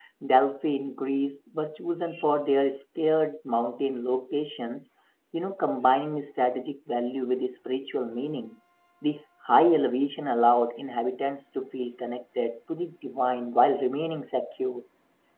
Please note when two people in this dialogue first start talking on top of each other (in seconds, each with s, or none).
none